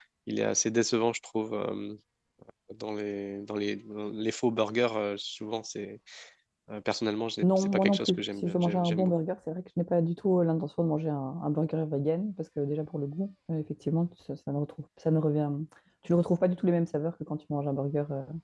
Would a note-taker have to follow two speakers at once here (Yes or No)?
Yes